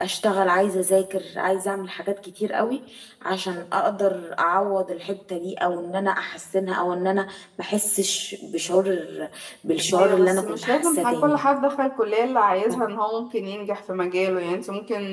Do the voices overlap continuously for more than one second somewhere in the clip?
Yes, from 9.9 s

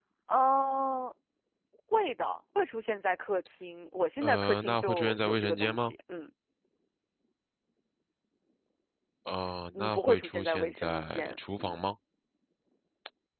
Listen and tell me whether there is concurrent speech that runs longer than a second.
Yes, from 4.2 s

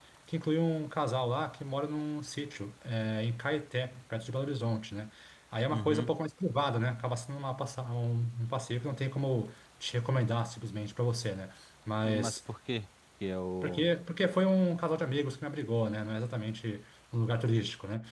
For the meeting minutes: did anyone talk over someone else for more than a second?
No

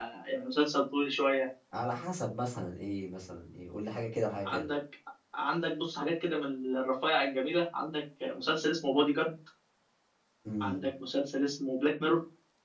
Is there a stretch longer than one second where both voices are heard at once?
No

